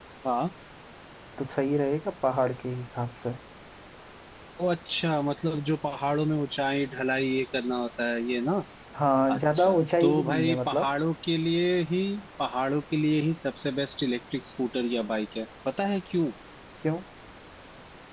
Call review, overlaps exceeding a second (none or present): present